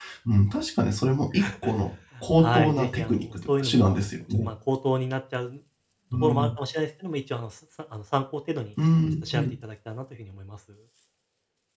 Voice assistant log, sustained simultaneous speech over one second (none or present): present